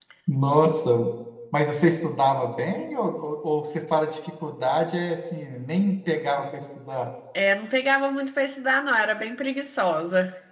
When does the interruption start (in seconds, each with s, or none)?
none